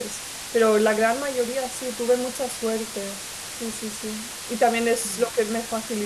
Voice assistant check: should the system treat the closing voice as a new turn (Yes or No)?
No